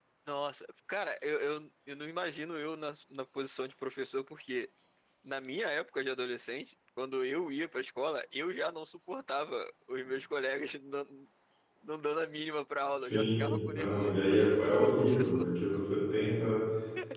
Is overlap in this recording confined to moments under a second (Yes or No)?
No